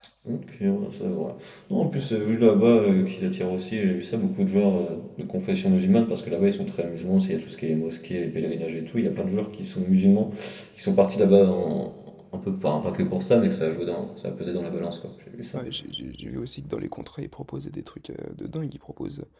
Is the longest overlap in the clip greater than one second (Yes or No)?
No